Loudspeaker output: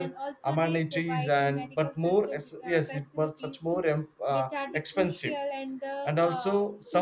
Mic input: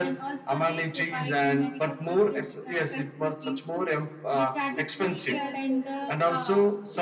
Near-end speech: present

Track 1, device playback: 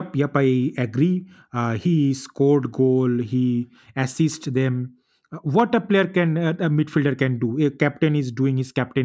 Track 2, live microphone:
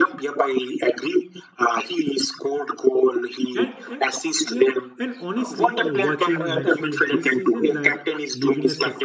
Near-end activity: present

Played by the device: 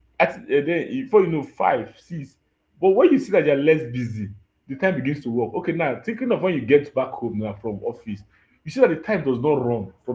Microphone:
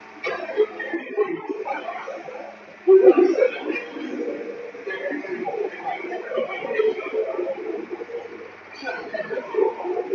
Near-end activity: none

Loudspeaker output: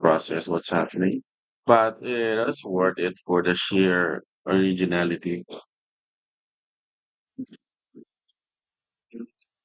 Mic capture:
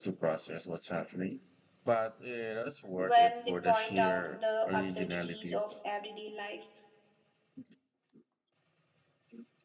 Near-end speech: present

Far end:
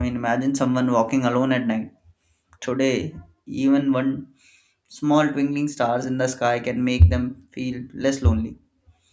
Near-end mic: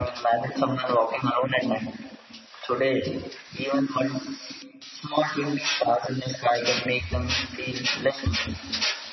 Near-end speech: none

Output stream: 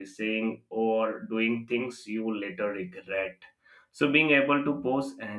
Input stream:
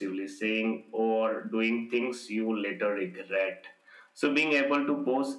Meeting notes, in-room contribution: none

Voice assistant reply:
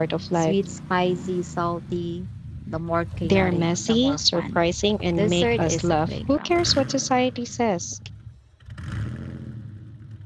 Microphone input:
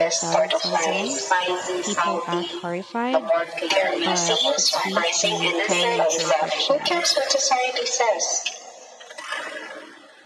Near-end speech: present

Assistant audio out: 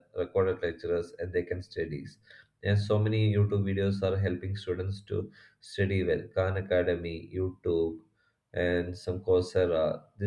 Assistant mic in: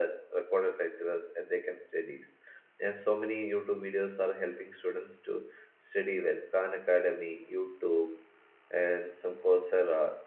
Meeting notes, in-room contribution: none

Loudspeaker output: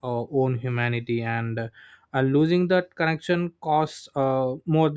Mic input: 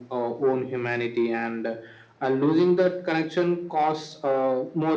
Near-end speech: none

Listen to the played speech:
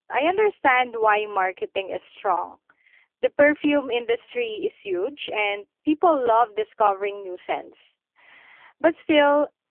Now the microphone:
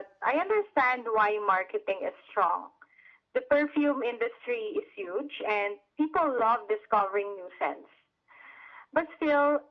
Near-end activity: none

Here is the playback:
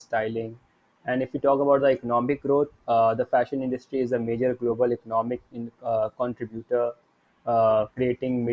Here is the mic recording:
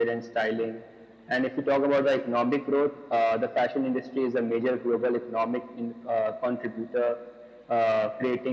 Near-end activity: none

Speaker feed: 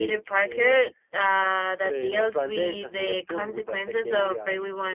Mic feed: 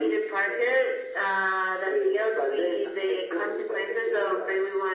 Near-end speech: none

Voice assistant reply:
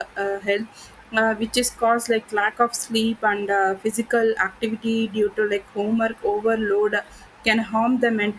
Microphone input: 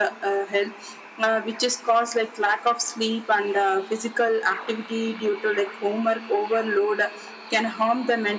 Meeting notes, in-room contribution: none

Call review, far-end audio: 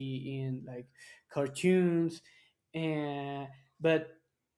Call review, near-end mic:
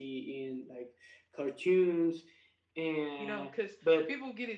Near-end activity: present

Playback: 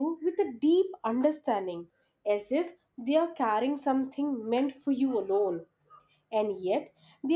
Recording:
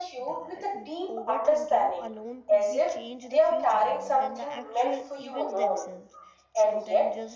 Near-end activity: present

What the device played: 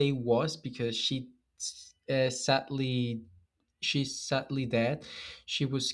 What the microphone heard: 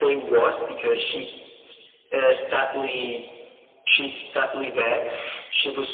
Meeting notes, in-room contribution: none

